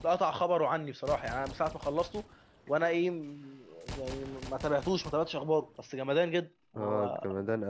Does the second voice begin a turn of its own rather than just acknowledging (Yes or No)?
Yes